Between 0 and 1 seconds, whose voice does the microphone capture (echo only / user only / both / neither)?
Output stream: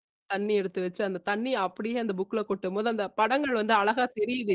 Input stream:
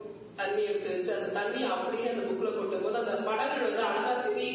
echo only